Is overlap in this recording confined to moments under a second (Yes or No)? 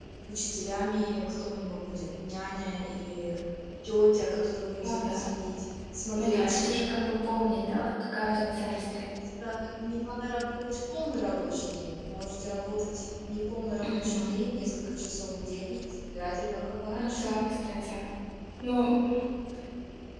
Yes